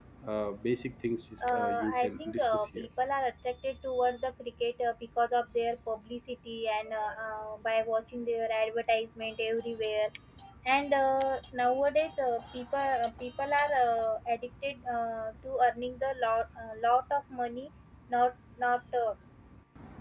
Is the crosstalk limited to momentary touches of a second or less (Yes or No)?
No